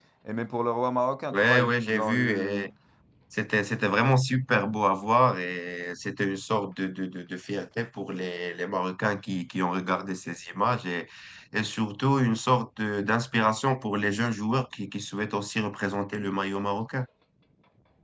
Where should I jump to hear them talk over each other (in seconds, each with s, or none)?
1.3 s